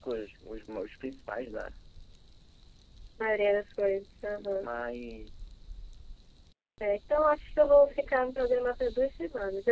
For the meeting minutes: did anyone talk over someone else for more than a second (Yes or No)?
No